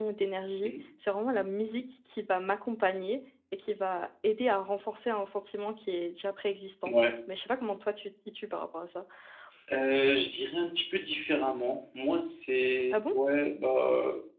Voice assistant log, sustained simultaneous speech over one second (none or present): none